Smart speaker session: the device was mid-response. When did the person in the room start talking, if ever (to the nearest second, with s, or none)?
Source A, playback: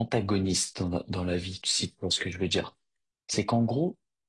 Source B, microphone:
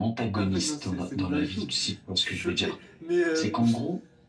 0 s